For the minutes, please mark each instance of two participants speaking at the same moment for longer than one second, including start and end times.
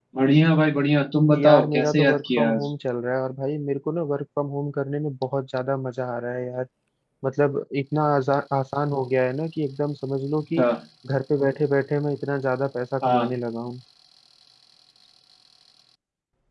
1.4-2.7

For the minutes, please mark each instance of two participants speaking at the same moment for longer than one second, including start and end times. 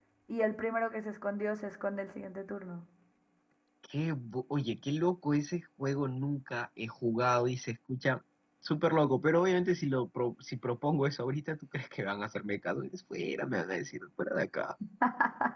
none

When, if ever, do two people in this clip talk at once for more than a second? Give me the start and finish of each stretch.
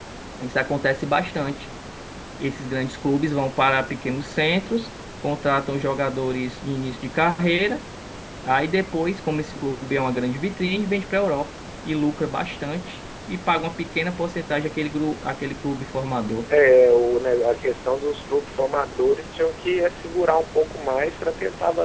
none

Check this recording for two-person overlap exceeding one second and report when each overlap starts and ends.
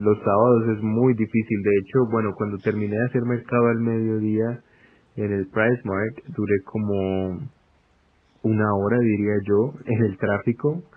none

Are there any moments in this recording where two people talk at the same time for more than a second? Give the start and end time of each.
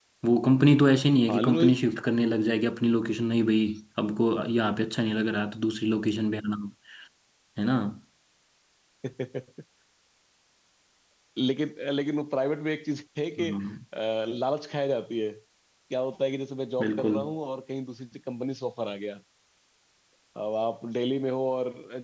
none

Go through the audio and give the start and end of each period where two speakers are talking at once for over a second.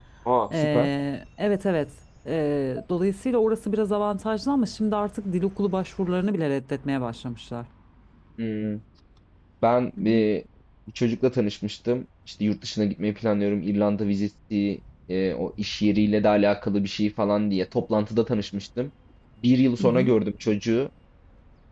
none

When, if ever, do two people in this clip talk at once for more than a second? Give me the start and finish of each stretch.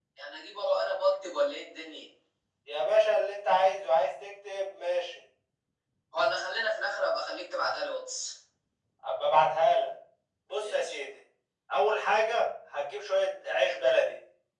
none

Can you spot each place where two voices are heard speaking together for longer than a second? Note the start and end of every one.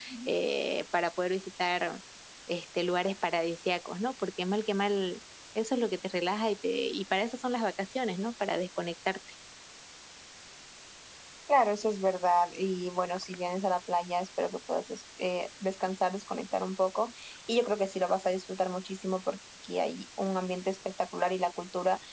none

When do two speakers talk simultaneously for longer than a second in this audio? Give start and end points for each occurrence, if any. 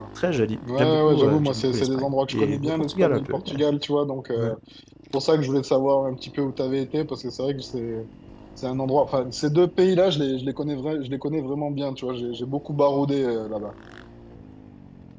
0.8-3.6

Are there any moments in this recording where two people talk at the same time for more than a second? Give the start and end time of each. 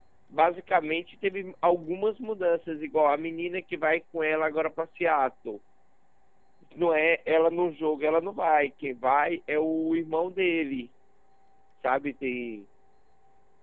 none

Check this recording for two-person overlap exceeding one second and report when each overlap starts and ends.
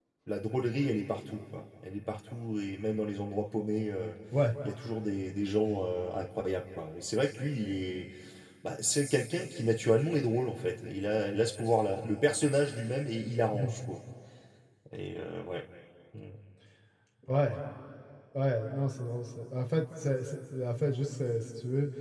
none

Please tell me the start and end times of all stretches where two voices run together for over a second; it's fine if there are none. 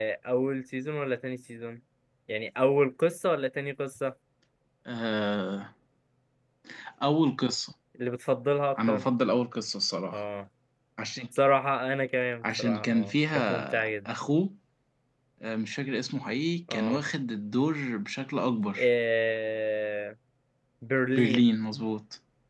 12.4-14.1

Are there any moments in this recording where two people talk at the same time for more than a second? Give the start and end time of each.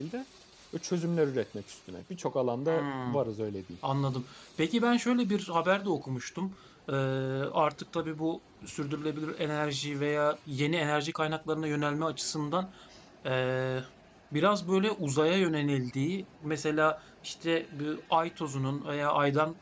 none

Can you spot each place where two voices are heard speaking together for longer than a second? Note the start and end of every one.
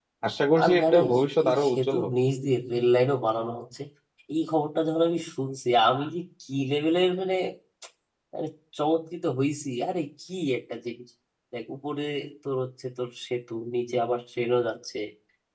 0.6-2.1

